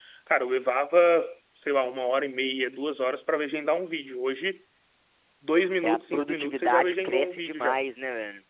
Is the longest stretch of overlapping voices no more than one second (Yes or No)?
No